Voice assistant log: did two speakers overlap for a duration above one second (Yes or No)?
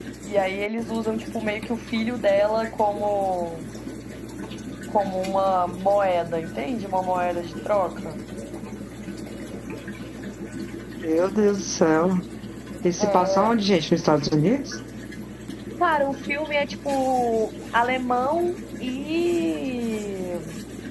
No